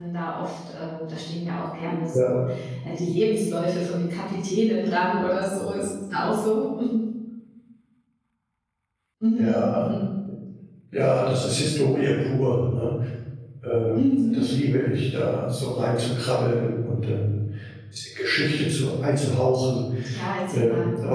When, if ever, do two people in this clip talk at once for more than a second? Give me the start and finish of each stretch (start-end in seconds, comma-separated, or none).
none